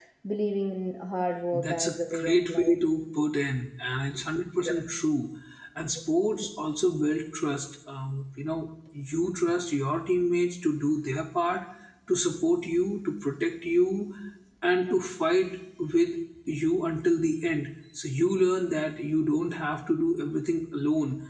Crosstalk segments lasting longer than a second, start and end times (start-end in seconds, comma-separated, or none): 1.5-2.7